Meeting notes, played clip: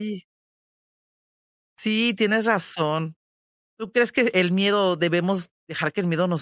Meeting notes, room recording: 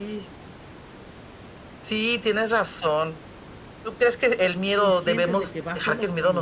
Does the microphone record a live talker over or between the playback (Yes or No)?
Yes